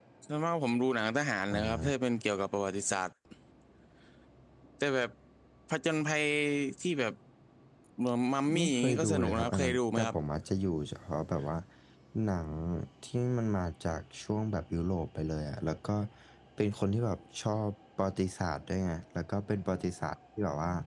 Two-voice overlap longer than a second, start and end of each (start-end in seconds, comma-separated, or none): 8.5-10.1